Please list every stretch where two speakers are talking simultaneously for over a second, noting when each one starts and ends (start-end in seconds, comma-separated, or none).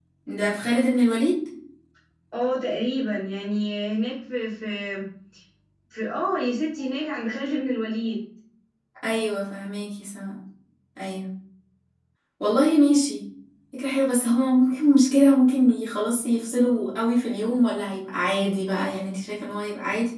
none